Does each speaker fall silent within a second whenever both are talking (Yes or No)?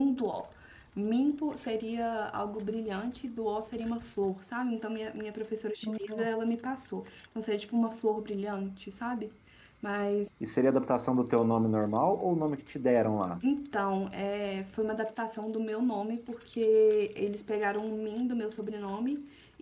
Yes